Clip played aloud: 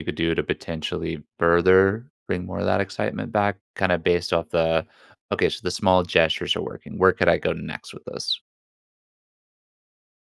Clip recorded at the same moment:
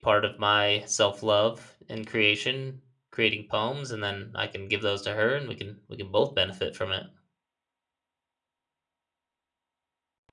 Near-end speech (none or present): present